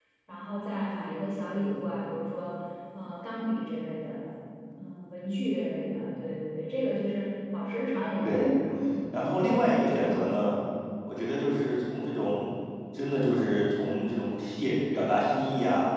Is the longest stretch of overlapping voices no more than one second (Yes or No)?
No